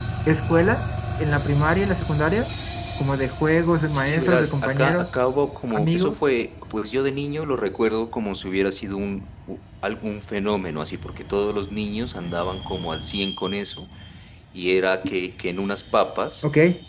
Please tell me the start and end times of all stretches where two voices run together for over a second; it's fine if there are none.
3.9-5.1

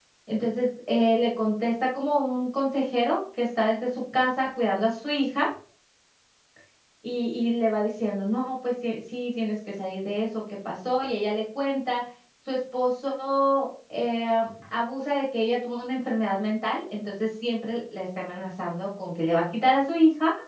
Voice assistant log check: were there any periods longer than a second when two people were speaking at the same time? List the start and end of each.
none

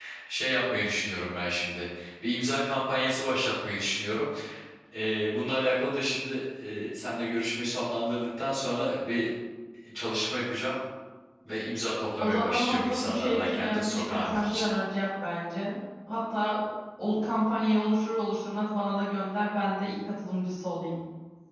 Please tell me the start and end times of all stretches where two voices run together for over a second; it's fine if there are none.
12.2-14.7

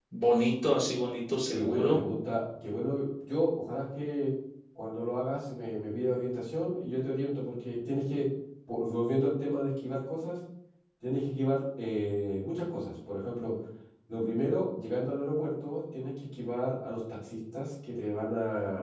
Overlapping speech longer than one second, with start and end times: none

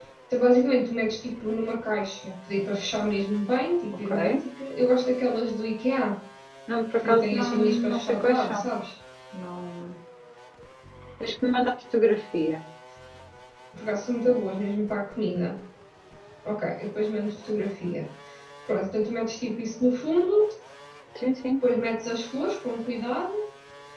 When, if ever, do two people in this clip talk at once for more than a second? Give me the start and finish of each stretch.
7.0-8.7

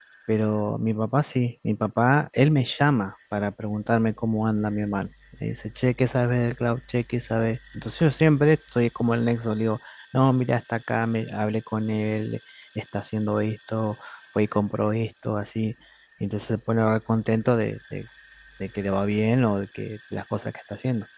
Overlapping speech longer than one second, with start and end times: none

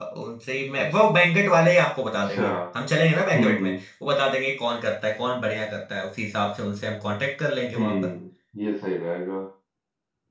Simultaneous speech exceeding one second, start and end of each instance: none

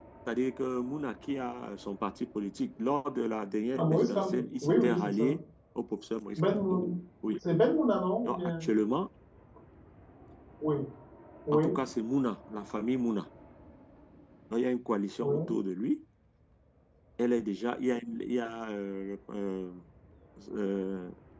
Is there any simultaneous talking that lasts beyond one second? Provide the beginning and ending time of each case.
3.7-5.3

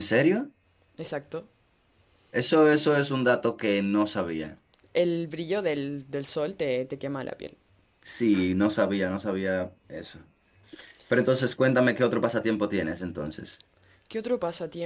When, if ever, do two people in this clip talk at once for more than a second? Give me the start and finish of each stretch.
none

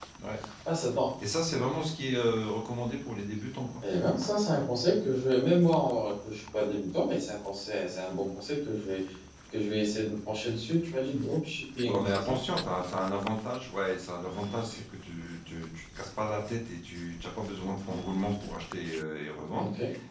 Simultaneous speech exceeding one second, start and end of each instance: none

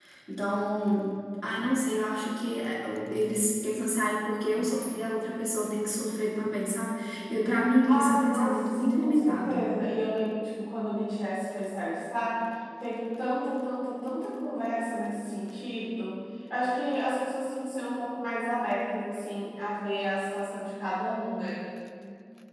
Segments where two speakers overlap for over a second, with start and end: 7.9-9.6

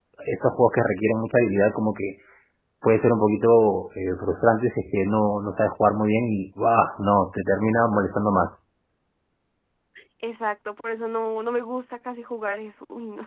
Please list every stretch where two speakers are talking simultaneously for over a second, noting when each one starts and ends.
none

